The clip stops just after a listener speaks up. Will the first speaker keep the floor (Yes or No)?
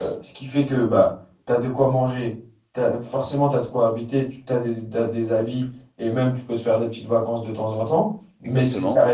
Yes